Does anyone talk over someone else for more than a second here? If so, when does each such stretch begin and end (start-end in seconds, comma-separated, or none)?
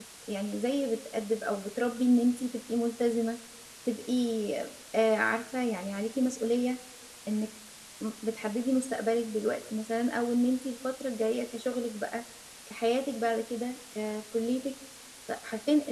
none